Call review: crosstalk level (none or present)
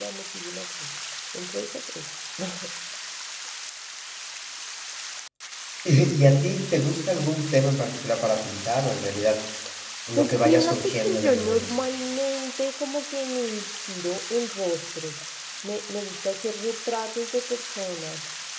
present